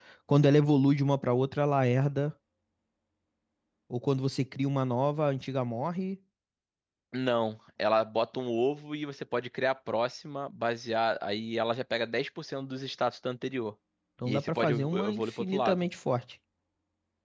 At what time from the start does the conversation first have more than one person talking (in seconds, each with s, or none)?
14.2 s